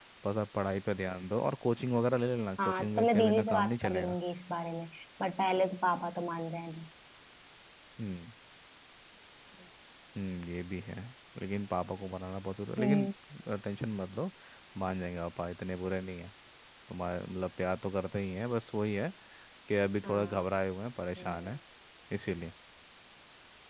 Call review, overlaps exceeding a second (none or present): present